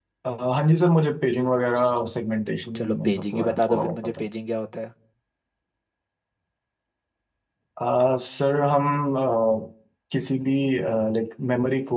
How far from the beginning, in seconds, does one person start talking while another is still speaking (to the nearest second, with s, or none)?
3 s